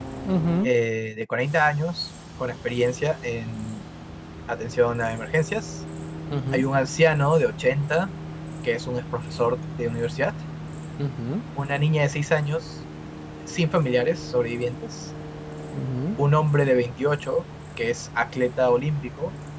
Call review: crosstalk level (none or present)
none